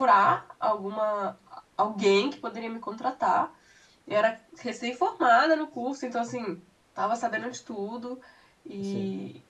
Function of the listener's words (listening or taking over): listening